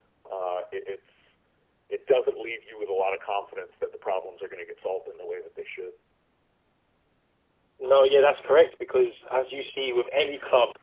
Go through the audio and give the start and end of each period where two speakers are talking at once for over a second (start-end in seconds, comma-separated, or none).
none